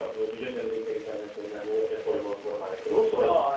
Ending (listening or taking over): taking over